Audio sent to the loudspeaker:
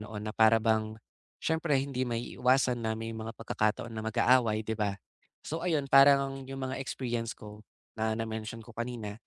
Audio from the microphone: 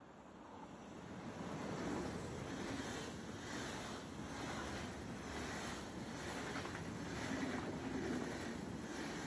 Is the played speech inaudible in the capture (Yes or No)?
Yes